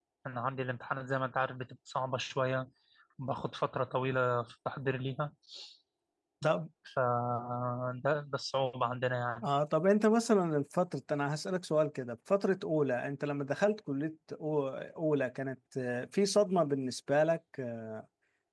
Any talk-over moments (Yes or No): No